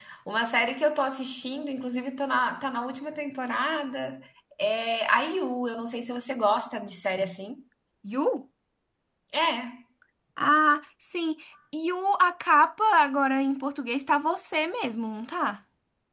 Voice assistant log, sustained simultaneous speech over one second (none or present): none